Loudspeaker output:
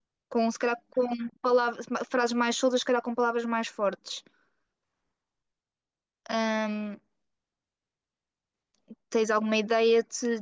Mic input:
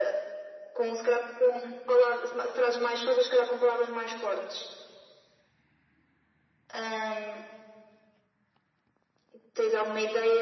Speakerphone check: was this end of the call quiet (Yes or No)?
Yes